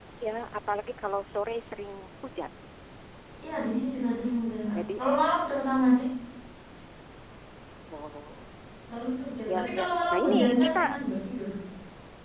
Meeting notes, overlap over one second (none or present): present